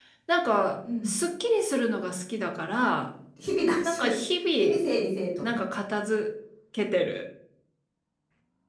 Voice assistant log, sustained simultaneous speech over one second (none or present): none